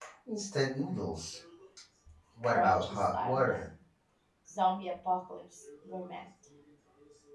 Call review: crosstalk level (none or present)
present